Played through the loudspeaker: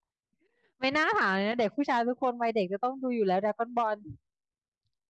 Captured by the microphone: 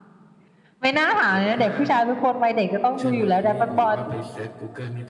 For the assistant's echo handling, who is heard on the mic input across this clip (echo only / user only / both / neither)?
both